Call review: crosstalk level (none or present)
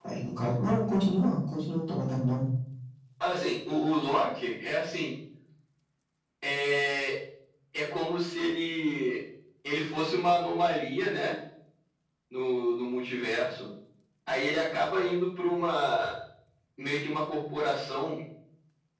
none